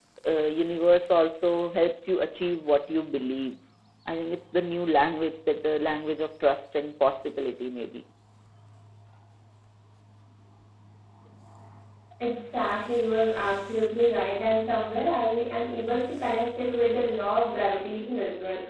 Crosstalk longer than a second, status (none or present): none